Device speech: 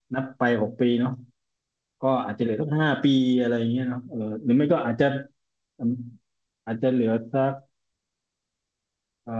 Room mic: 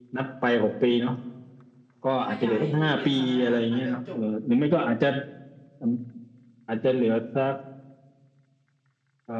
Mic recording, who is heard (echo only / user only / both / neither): both